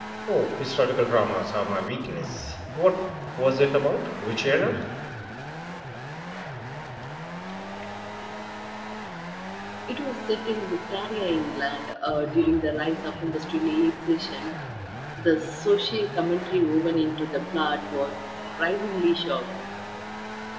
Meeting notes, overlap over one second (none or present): none